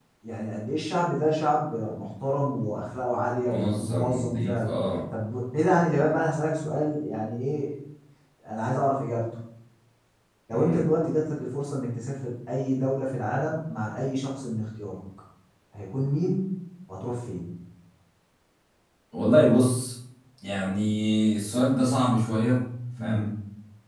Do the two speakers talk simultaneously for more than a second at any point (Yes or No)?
Yes